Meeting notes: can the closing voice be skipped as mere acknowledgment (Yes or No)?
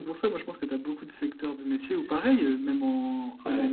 Yes